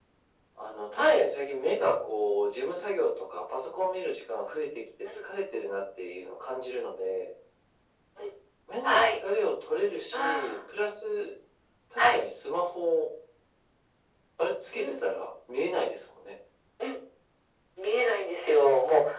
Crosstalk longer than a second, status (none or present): none